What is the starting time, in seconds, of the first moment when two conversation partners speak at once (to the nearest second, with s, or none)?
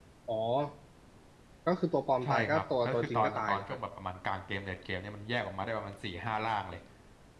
2 s